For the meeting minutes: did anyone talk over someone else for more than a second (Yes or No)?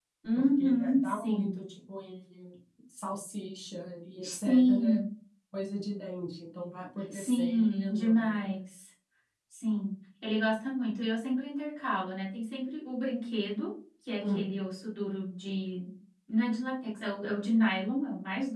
Yes